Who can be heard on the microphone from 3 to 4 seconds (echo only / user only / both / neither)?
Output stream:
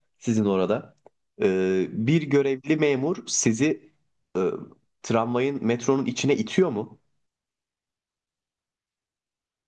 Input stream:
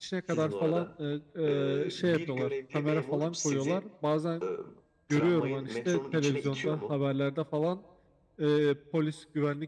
both